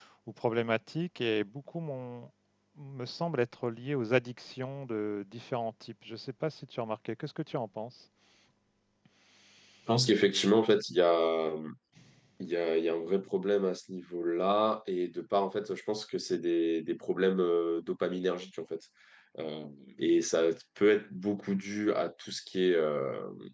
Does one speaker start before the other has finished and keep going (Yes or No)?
No